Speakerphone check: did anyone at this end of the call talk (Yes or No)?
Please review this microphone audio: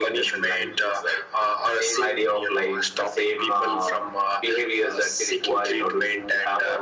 No